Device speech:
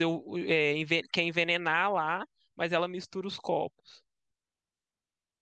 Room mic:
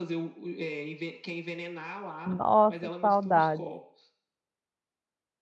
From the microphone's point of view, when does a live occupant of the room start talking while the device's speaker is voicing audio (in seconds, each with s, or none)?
2.2 s